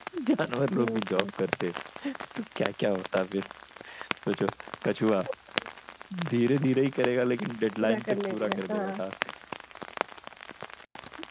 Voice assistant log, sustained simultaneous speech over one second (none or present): present